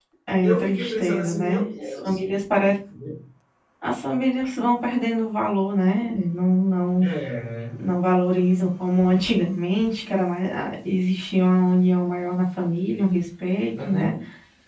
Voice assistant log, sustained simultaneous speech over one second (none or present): present